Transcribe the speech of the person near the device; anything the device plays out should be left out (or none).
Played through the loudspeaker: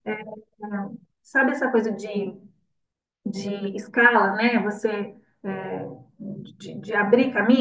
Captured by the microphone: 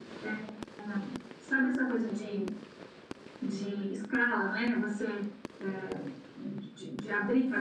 none